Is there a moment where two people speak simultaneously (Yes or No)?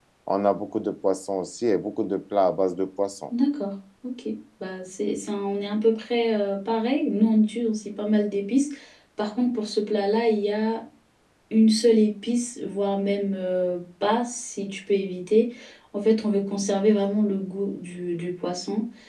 No